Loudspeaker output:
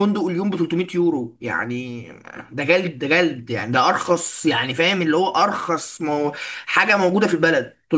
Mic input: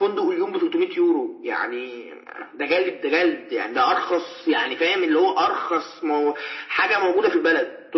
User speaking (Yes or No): No